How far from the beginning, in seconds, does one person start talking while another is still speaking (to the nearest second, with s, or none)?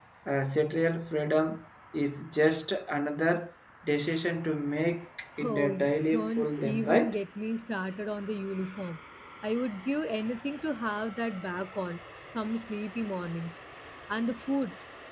5 s